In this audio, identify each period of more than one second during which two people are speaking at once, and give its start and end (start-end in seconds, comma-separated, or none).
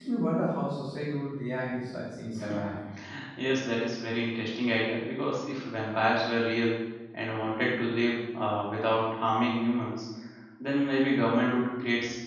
none